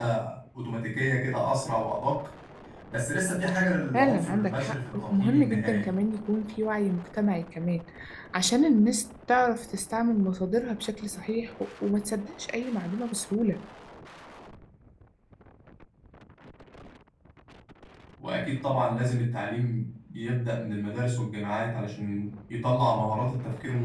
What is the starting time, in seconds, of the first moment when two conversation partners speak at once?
3.9 s

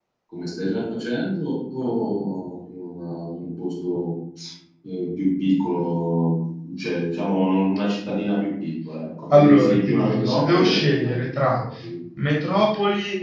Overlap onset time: 9.2 s

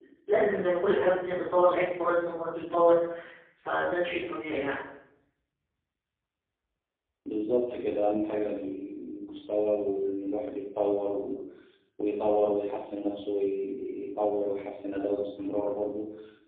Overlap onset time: none

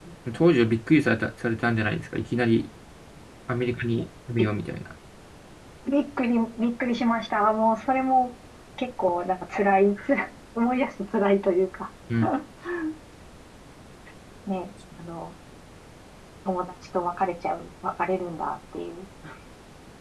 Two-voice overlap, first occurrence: none

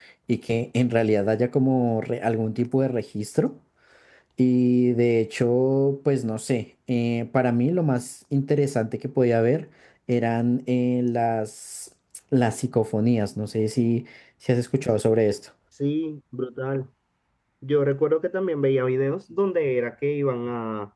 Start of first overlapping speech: none

